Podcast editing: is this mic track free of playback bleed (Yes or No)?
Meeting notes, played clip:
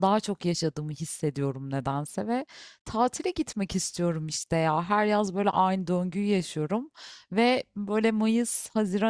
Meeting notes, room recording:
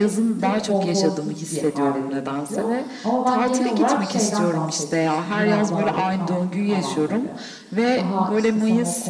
No